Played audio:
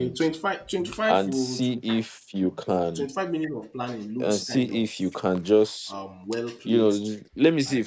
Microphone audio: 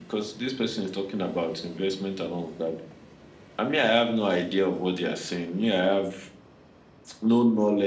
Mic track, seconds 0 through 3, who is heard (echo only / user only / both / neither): user only